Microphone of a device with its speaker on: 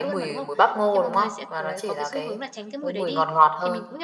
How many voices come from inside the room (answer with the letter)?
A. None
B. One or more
B